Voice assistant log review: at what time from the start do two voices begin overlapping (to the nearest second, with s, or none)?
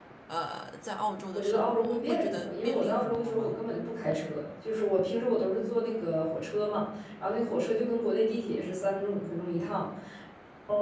1 s